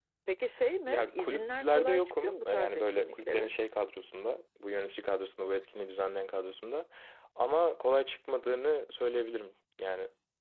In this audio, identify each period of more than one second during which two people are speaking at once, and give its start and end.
0.9-3.5

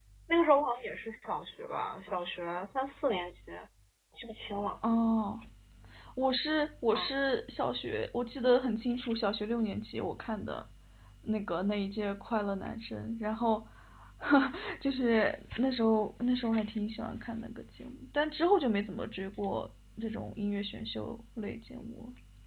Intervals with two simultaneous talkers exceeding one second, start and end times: none

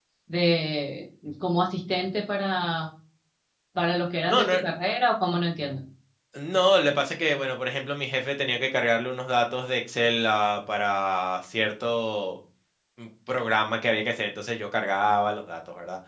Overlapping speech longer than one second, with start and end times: none

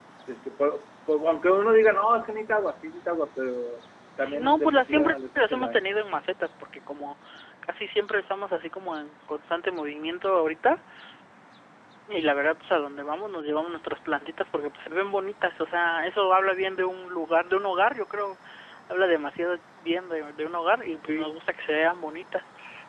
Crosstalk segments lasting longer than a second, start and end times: 4.2-5.8

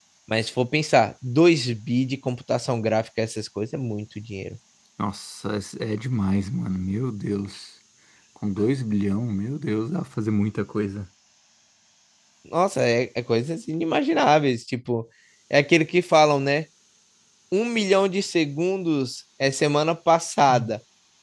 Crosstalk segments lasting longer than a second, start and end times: none

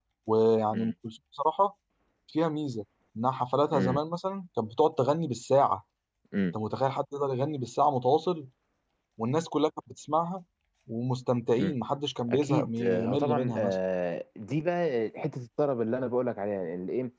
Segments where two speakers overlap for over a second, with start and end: 12.3-13.8

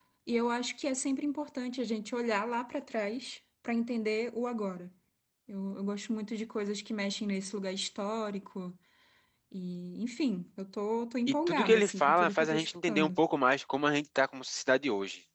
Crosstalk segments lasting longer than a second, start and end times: 11.5-13.2

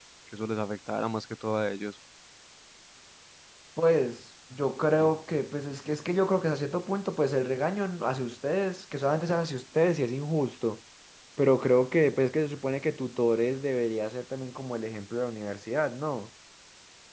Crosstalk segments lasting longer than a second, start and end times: none

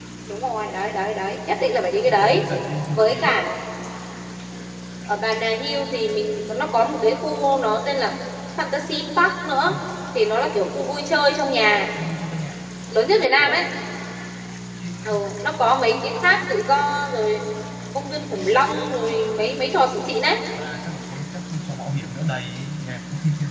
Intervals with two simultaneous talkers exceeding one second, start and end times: none

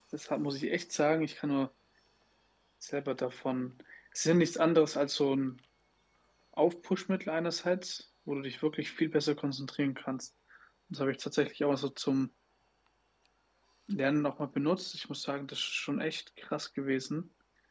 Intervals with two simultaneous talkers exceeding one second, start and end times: none

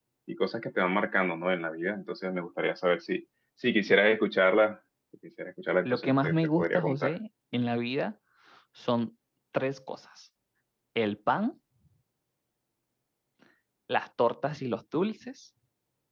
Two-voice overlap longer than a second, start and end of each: 5.8-7.1

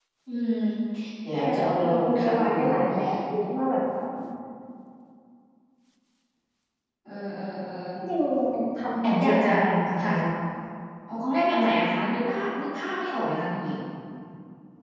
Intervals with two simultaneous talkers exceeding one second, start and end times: 1.4-2.6

